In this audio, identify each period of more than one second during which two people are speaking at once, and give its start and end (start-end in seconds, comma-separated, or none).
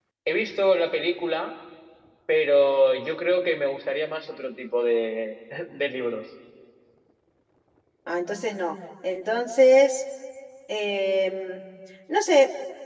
none